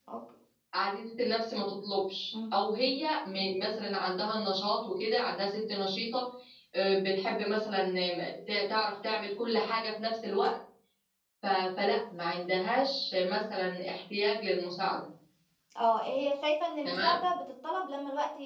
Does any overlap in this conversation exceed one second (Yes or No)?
No